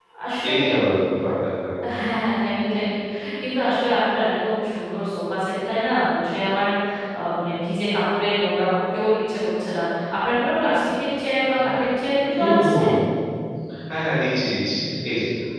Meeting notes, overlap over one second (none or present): none